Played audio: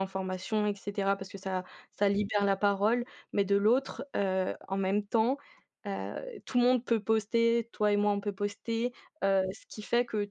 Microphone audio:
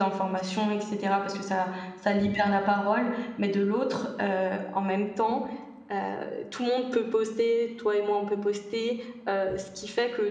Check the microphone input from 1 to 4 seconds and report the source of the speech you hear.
echo only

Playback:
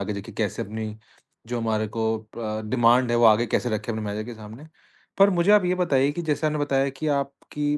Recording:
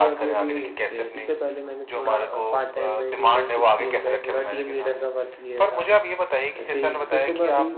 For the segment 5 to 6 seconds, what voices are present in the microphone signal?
both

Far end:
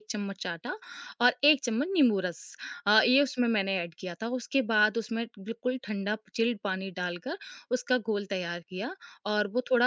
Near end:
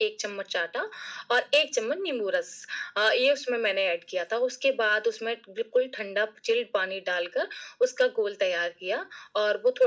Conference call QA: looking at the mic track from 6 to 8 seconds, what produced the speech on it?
echo only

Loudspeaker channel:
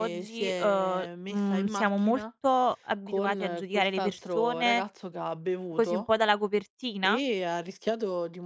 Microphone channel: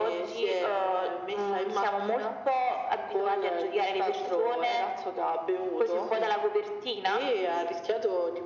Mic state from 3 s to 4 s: echo only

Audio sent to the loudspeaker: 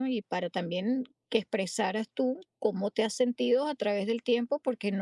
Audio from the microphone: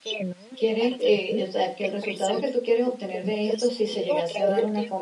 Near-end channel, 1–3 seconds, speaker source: both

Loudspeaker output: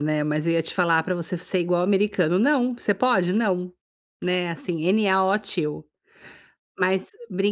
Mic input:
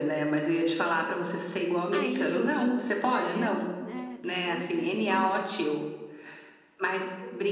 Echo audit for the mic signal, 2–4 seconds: both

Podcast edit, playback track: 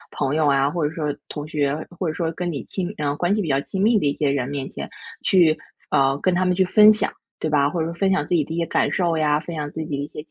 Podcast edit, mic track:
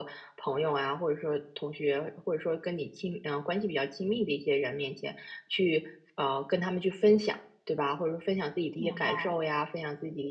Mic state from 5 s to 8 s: echo only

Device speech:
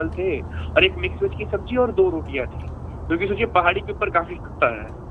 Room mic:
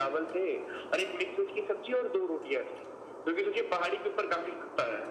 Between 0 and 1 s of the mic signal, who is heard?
echo only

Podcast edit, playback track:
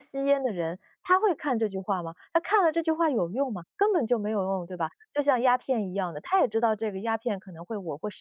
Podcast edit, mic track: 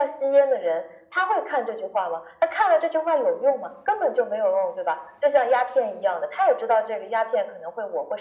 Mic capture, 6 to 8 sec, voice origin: echo only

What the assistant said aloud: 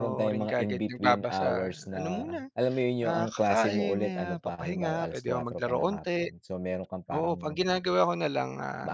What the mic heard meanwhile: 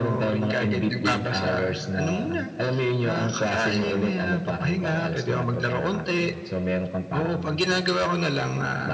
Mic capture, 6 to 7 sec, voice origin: echo only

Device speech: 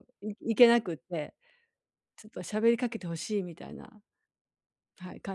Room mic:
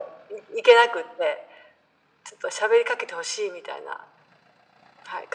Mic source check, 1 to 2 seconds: echo only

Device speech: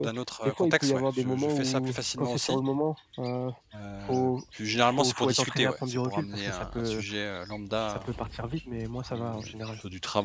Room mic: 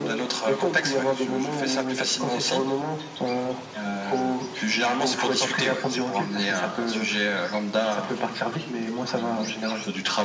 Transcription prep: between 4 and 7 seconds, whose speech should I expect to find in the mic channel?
echo only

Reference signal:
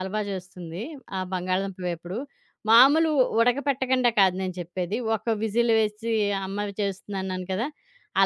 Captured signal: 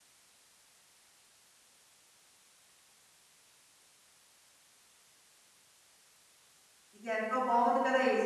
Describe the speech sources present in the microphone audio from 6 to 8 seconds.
user only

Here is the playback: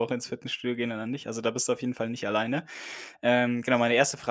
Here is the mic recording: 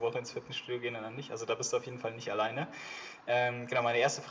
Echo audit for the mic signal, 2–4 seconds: echo only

